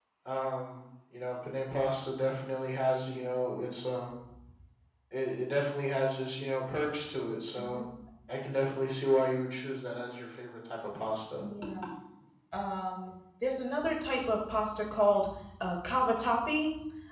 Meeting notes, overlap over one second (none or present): none